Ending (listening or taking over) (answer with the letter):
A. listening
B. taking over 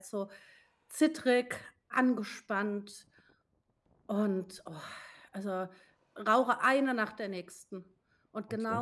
A